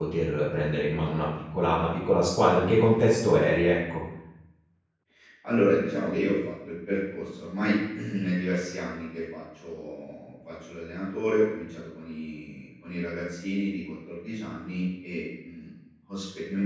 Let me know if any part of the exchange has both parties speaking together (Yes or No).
No